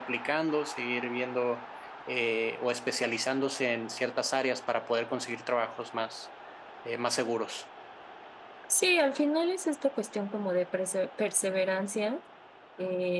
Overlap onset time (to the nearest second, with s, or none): none